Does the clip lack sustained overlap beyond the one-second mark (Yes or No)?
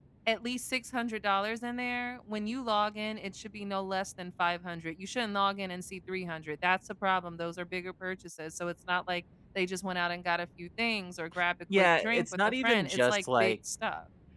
No